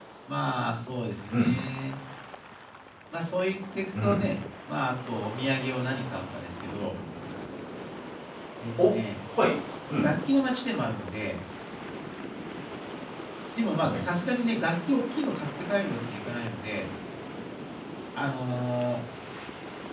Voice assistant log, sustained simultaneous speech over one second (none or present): none